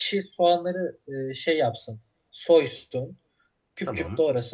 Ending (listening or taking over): listening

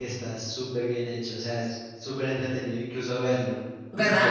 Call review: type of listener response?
listening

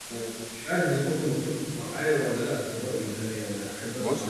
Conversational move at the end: taking over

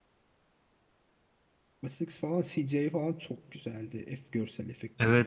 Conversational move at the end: taking over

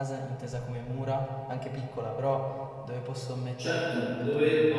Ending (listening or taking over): taking over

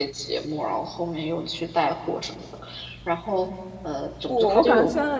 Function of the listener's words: taking over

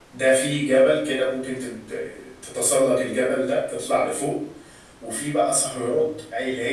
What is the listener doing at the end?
listening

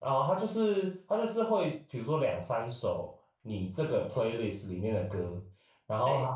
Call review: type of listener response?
listening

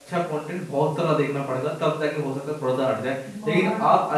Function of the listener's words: listening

